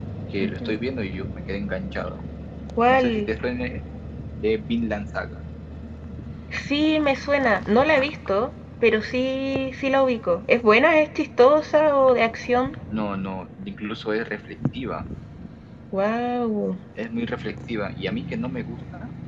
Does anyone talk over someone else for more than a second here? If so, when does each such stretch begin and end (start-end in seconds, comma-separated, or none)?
none